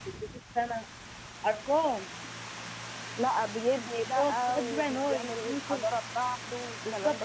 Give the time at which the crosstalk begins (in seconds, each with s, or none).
4.2 s